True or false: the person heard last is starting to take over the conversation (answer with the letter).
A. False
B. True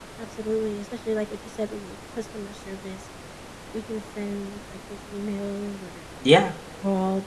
A